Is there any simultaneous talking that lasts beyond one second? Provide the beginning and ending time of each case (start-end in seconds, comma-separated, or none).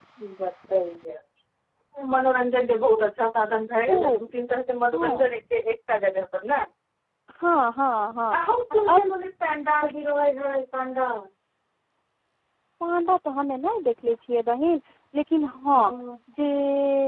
none